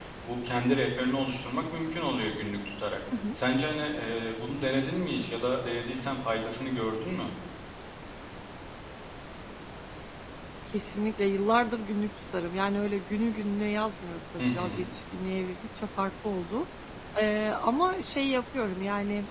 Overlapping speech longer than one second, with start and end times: none

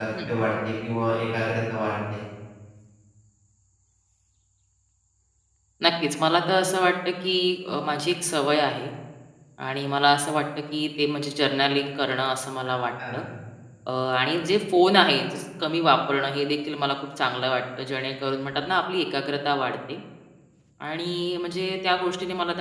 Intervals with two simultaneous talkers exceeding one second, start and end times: none

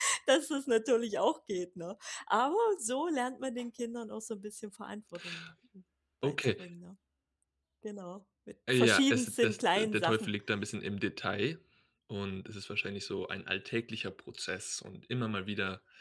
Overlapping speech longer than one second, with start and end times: 8.7-10.3

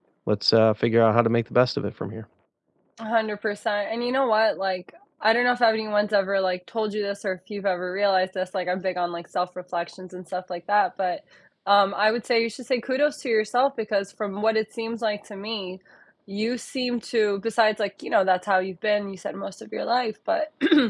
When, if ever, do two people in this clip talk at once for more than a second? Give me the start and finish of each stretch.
none

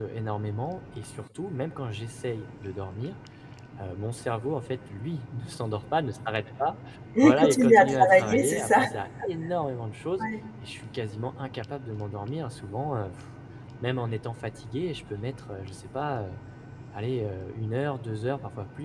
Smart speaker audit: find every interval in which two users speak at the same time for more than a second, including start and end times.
7.2-8.8

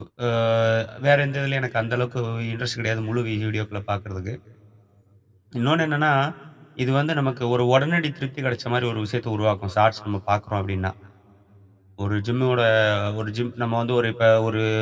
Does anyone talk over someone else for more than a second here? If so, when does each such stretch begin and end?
none

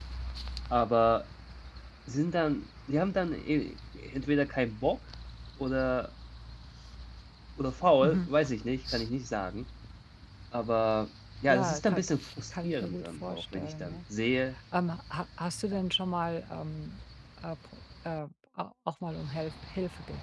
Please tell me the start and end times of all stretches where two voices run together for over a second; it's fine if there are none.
12.6-14.0

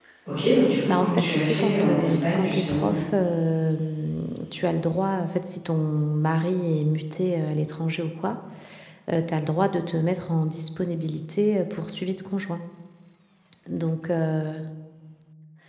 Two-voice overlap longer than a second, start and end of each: 0.9-2.9

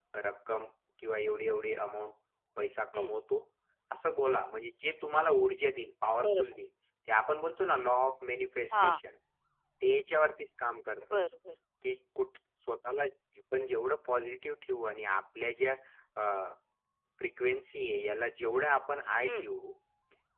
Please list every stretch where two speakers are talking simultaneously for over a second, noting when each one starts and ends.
none

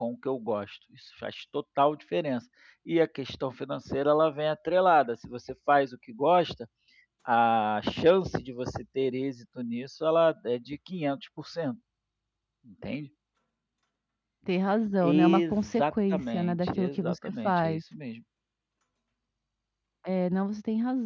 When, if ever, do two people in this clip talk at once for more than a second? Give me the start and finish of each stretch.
15.0-17.8

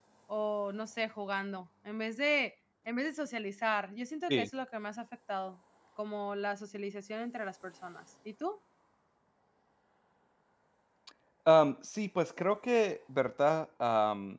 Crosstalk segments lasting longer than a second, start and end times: none

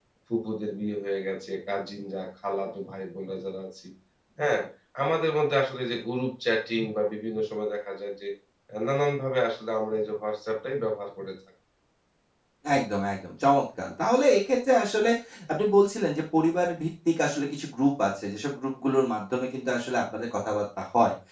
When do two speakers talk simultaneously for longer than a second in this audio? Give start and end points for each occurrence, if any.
none

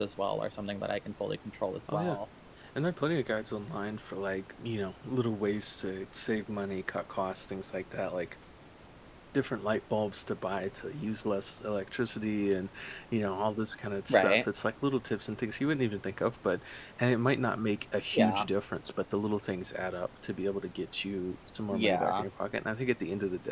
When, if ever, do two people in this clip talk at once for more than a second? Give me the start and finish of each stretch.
none

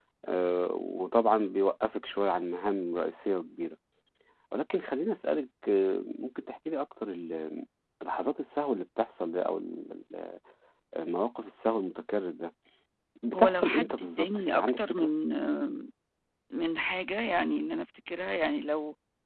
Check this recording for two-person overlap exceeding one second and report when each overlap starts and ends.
13.3-15.1

